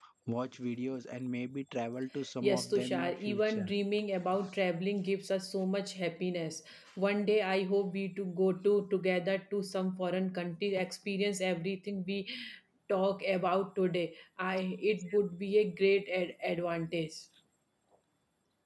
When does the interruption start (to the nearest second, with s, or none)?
2 s